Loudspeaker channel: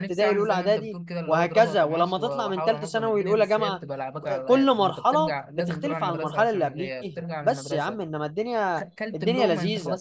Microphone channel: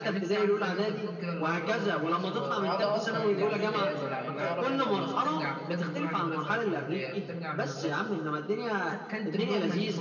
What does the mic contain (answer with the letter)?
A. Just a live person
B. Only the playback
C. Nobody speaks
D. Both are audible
D